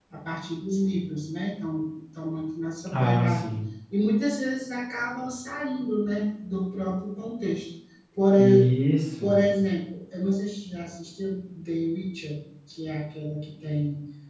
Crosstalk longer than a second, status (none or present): none